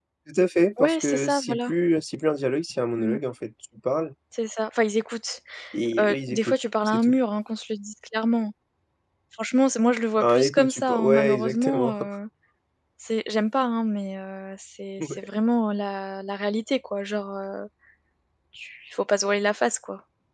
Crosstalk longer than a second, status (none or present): present